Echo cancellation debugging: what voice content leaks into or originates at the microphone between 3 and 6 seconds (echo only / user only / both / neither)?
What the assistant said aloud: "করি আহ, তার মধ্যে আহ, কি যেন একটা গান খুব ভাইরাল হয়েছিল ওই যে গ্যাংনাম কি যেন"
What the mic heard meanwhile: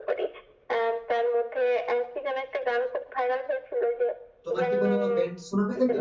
both